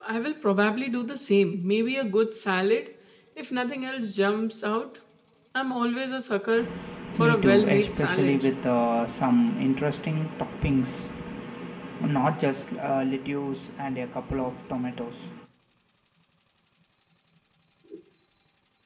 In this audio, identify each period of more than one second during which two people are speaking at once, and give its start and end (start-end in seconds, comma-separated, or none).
7.2-8.5